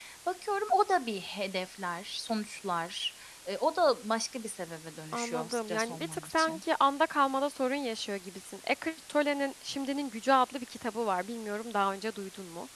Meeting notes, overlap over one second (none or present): present